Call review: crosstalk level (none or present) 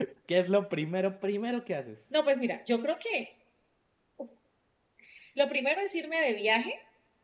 none